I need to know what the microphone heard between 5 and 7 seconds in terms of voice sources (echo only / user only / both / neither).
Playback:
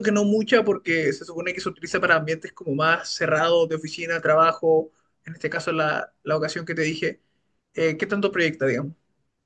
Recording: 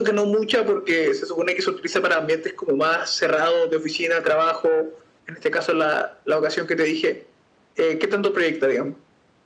echo only